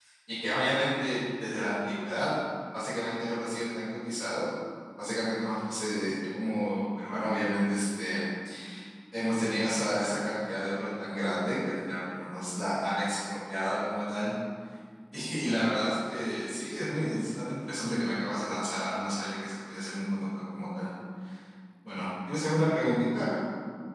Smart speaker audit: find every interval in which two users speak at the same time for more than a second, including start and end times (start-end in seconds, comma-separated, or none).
none